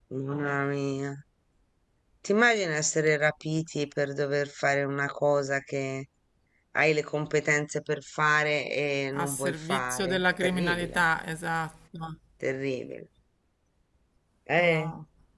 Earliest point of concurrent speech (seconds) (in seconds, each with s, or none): 9.2 s